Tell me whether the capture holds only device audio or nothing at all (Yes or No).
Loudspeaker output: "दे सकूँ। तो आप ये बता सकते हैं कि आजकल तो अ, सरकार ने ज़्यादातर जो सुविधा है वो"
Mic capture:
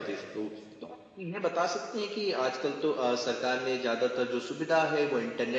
Yes